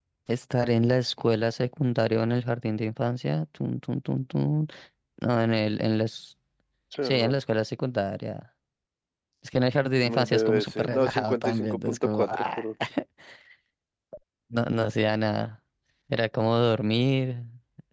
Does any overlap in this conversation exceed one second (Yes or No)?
Yes